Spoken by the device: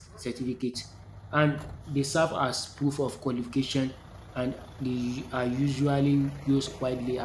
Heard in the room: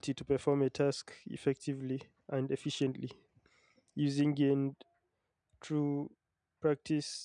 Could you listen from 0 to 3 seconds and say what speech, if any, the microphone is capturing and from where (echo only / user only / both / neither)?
user only